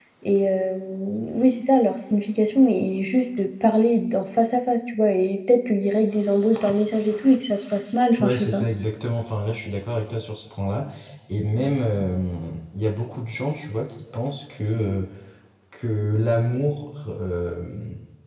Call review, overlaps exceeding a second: none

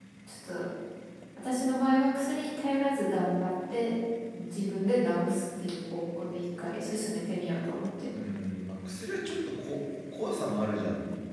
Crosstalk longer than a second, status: none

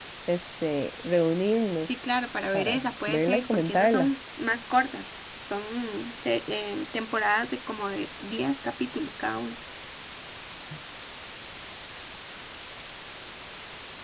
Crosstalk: present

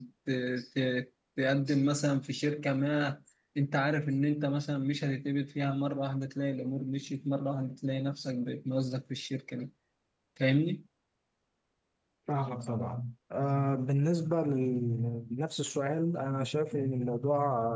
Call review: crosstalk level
none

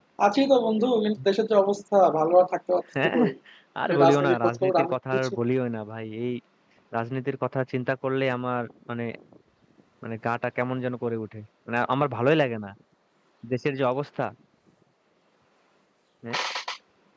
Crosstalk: present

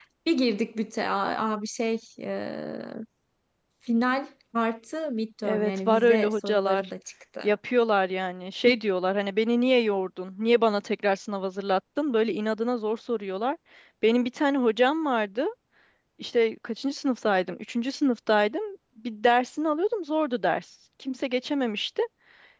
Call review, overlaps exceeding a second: present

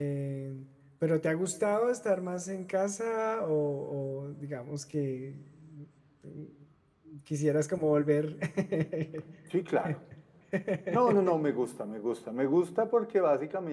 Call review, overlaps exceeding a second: none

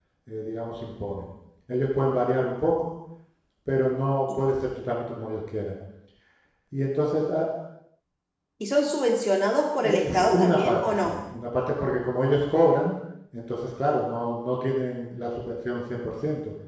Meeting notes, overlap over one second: present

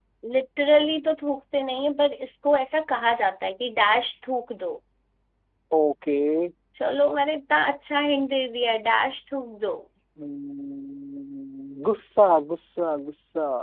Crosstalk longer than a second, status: none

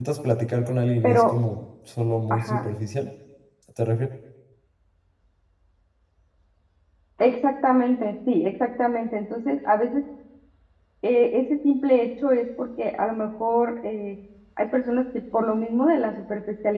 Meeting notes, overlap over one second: none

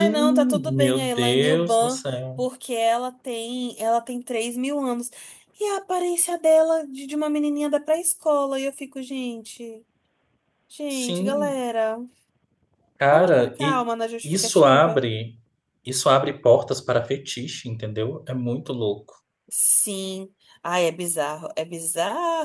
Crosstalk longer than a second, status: present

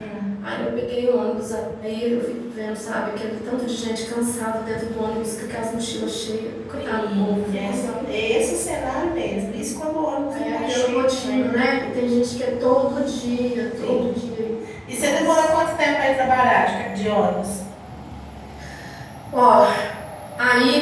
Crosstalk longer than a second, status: present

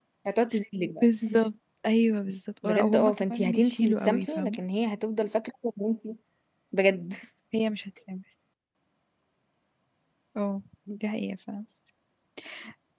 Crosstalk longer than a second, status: present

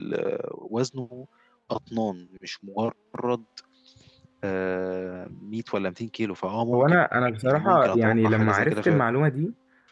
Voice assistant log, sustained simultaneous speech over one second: present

